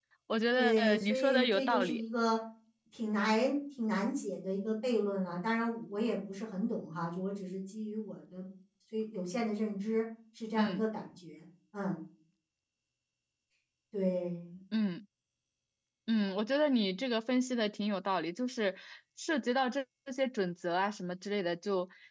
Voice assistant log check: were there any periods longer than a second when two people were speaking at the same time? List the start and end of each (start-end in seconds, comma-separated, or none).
0.5-2.0